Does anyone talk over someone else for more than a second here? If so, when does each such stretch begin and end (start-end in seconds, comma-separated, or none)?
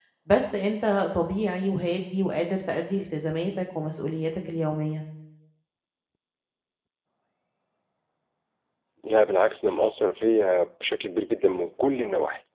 none